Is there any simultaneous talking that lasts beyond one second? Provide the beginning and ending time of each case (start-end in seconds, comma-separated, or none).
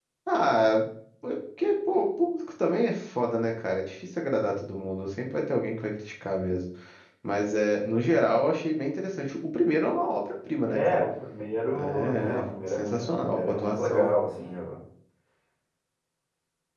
11.8-14.1